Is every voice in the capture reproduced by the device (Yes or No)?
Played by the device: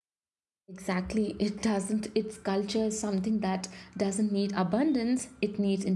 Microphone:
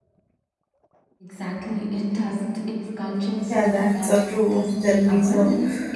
No